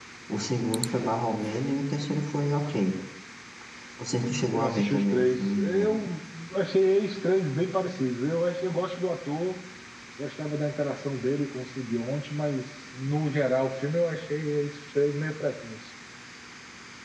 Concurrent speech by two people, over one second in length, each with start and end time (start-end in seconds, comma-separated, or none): 4.5-6.0